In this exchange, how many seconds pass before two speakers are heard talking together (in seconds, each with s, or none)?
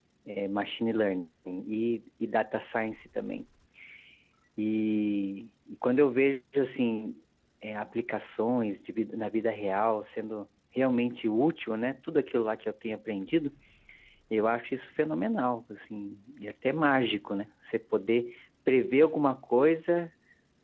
none